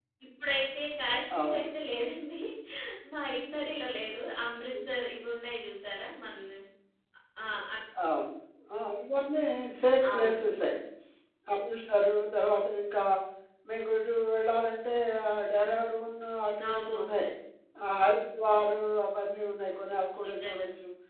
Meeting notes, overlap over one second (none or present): none